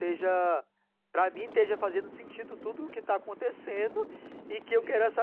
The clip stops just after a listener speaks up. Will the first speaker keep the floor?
Yes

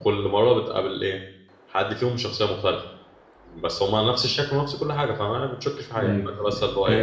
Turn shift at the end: Yes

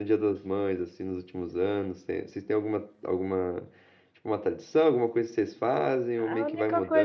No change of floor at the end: No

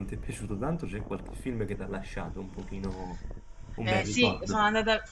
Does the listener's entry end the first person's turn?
Yes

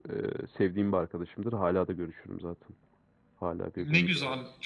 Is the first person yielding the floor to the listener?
Yes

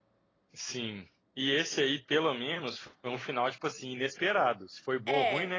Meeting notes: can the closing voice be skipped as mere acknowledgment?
Yes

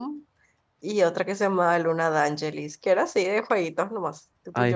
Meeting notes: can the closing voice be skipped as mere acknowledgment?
Yes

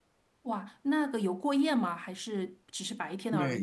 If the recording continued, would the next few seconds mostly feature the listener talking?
Yes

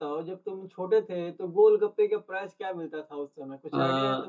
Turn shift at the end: Yes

